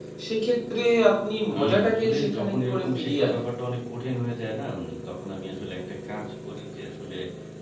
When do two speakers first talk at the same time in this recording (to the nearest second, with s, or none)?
1 s